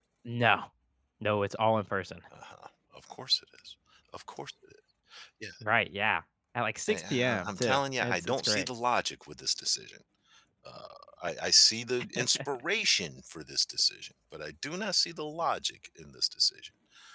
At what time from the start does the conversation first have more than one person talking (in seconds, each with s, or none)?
6.9 s